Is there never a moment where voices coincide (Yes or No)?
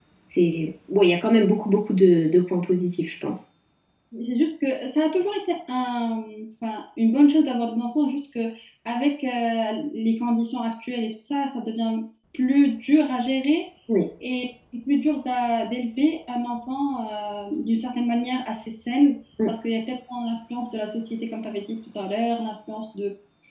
Yes